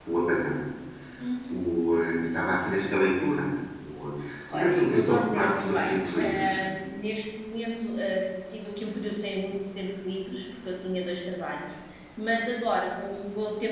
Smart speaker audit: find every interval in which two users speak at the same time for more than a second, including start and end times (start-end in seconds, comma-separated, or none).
4.5-6.5